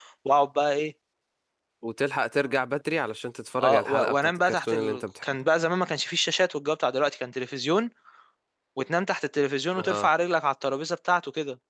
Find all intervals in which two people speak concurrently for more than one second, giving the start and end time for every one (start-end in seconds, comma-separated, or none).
3.6-5.3